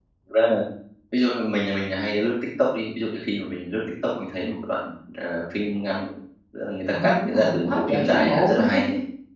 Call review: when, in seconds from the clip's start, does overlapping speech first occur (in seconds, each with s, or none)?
6.9 s